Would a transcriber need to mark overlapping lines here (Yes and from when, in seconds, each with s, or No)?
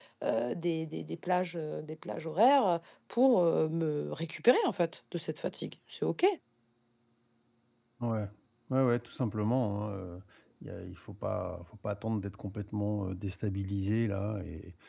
No